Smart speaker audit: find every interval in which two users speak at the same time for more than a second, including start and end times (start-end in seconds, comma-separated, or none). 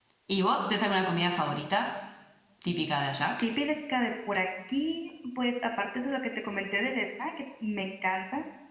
none